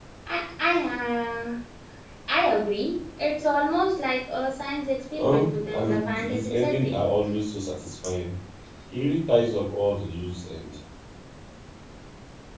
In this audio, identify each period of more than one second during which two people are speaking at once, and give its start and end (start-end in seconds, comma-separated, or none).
5.2-7.0